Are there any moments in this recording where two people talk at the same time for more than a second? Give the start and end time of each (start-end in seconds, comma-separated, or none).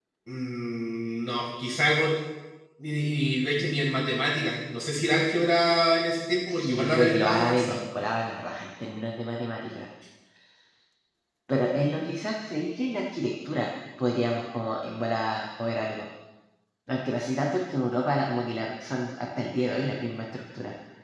6.5-7.8